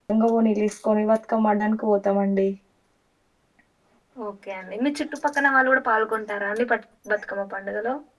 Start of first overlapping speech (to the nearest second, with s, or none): none